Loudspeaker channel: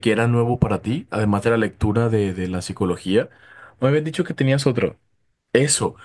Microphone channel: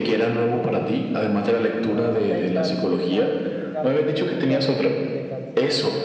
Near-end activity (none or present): present